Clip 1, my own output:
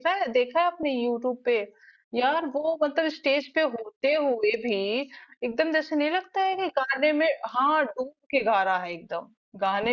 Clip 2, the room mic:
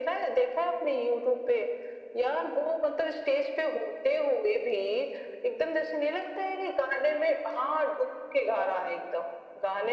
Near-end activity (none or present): none